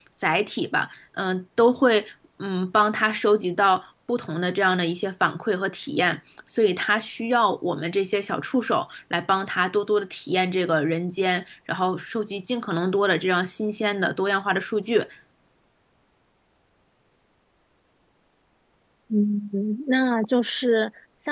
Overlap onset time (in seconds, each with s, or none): none